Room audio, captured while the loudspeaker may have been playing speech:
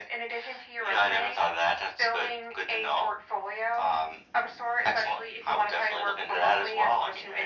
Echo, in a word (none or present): present